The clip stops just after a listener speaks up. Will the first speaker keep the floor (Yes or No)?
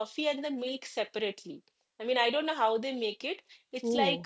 Yes